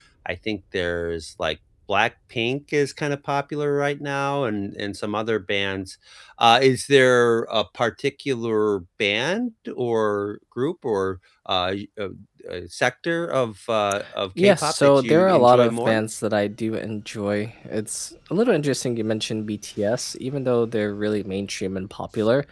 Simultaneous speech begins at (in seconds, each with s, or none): 14.4 s